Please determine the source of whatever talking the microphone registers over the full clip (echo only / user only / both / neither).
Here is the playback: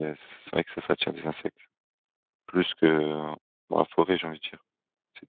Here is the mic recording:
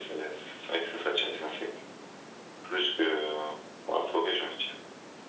echo only